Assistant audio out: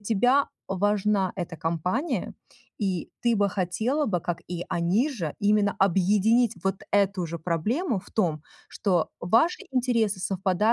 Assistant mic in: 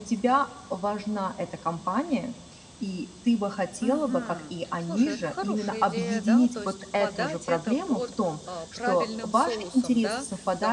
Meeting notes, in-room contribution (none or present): present